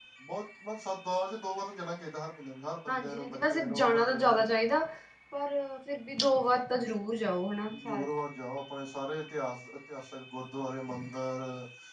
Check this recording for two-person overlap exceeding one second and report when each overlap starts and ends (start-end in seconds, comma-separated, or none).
2.9-4.4